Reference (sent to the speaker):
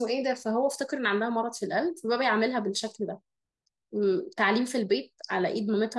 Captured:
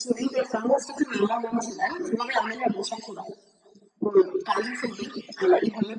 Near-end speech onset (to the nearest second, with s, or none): none